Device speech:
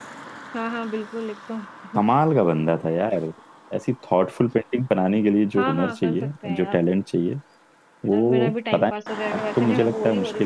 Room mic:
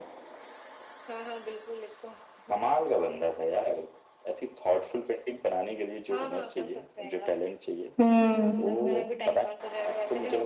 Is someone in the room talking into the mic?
Yes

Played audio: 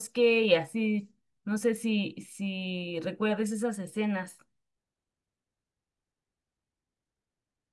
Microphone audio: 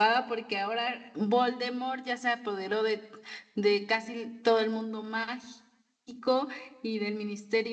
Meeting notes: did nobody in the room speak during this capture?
No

